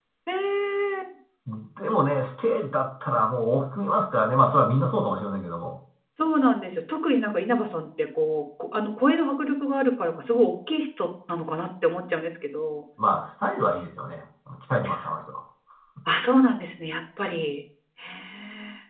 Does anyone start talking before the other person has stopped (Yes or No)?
No